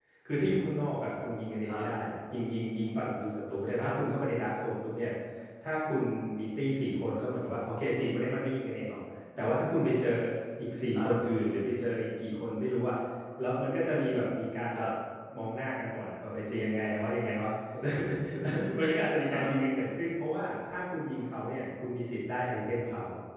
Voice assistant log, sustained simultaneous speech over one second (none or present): none